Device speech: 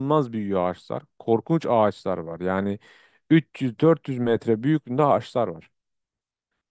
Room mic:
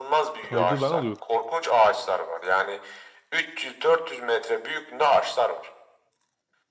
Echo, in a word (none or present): present